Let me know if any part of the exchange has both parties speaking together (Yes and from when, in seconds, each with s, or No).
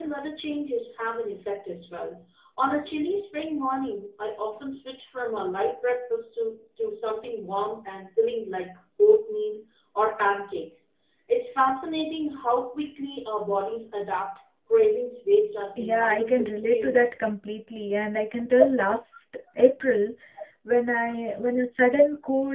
Yes, from 15.8 s